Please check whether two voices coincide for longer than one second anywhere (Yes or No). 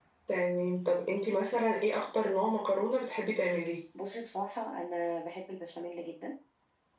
No